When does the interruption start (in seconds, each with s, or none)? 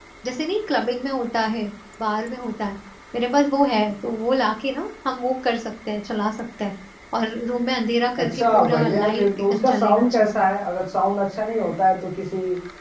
8.2 s